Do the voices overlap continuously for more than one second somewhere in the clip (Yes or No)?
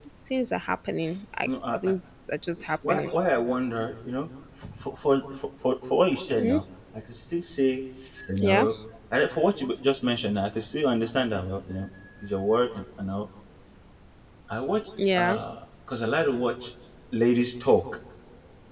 No